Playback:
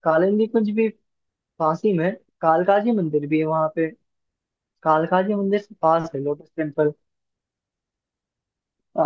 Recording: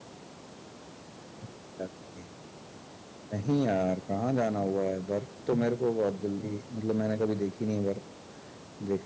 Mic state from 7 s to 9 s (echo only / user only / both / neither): user only